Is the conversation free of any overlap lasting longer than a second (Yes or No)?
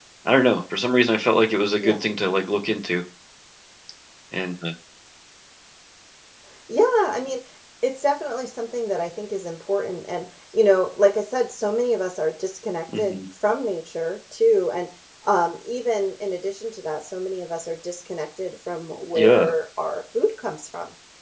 Yes